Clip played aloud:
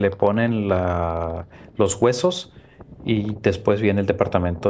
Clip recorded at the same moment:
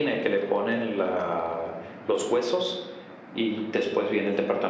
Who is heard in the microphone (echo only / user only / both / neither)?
echo only